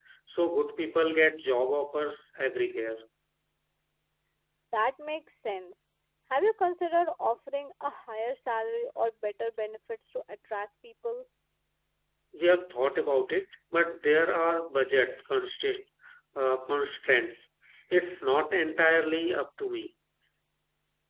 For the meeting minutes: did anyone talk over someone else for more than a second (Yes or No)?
No